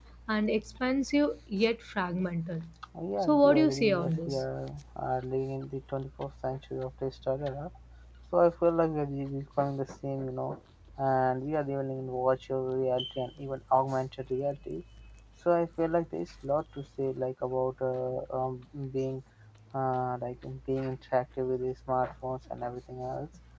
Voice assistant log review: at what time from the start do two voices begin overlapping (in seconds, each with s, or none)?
3.2 s